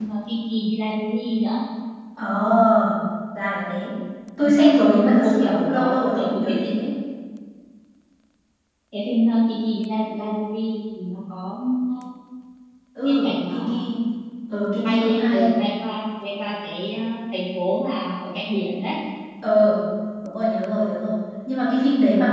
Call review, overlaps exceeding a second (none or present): present